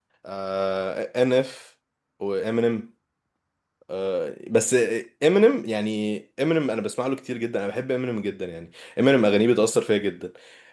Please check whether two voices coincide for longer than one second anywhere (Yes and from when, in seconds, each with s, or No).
No